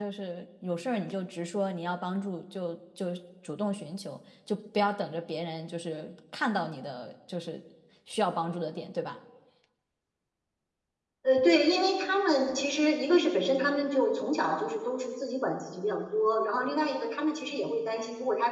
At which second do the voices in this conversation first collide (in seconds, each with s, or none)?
none